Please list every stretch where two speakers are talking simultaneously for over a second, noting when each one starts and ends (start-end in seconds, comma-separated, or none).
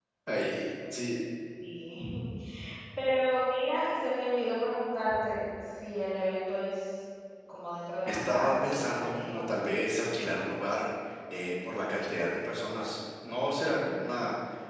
8.1-9.8